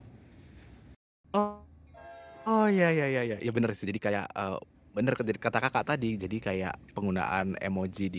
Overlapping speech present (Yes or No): No